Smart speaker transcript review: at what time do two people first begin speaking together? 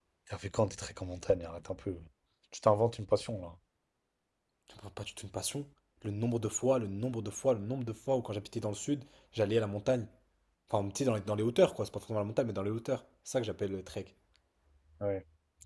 none

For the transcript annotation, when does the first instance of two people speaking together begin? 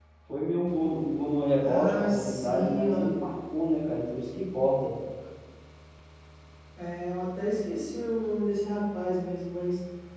1.6 s

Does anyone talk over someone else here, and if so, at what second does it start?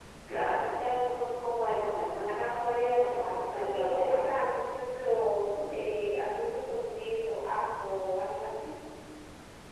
2.8 s

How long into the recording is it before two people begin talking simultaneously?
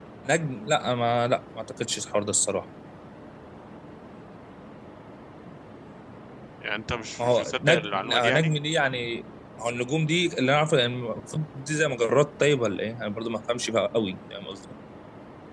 7.2 s

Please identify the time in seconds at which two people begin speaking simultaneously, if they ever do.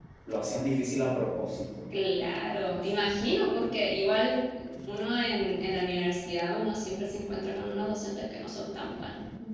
none

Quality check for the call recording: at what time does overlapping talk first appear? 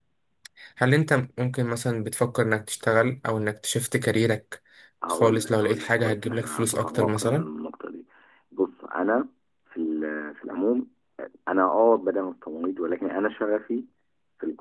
5.1 s

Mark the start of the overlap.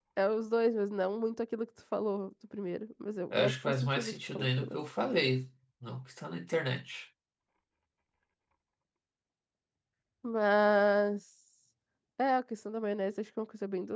3.3 s

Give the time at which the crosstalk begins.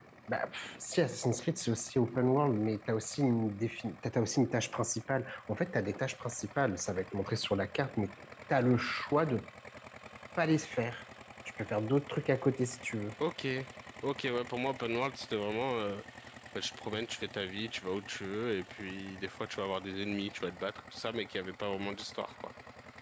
none

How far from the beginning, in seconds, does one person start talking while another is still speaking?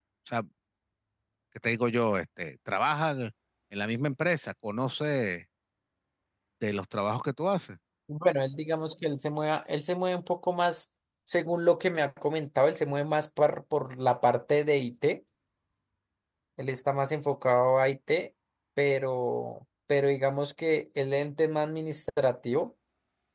none

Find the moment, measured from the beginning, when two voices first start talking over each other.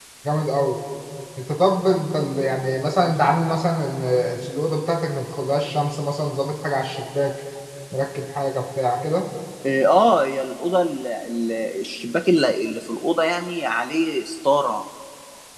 none

